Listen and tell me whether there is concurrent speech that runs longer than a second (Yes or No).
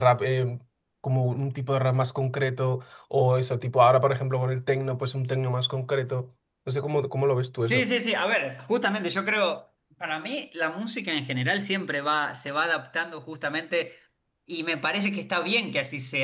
No